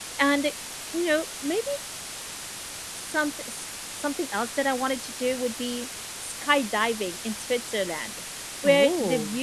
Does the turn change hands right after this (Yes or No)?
No